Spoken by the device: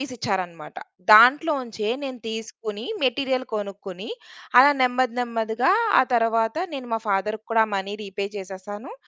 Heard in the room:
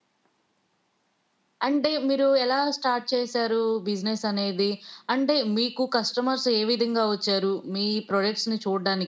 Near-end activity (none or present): present